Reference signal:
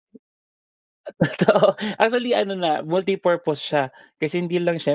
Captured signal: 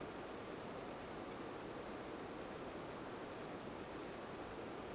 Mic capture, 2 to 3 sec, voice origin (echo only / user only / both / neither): neither